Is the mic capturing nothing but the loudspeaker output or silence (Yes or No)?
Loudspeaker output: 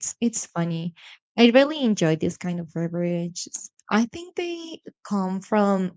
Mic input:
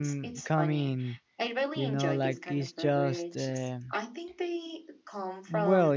No